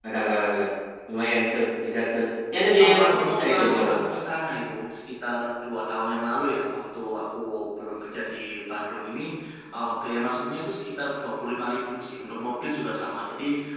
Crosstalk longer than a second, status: present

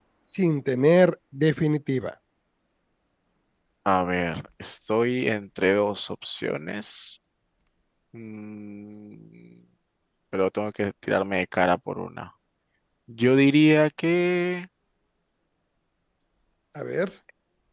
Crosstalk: none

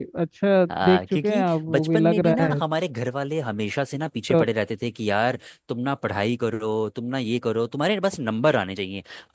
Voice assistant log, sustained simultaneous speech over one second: present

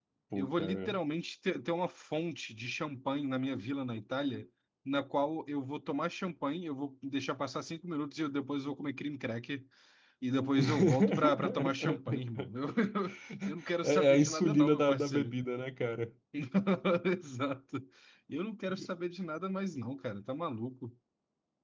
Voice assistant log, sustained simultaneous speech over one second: present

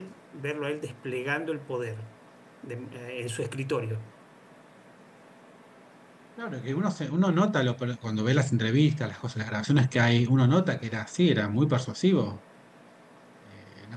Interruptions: none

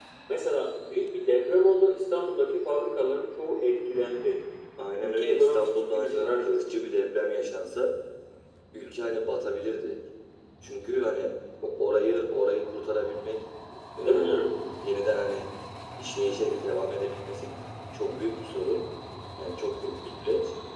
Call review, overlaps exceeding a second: present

